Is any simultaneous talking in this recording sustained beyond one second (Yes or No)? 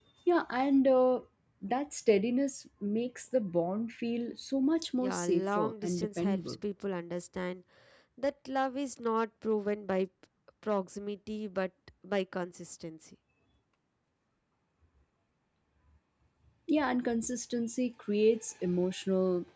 Yes